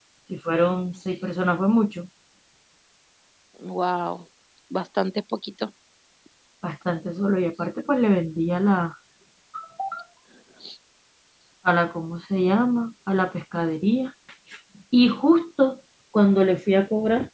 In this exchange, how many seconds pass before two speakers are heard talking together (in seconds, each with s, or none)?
none